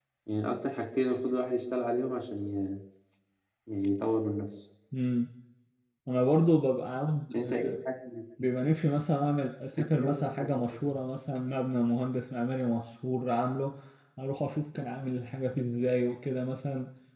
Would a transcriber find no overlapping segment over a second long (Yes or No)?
Yes